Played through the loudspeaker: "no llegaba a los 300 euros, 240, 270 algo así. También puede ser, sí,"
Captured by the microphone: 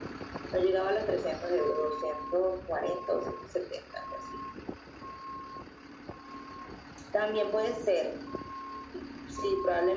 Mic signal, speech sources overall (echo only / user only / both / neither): echo only